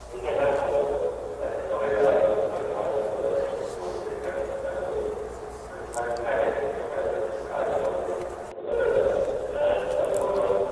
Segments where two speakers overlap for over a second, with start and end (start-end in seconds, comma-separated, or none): none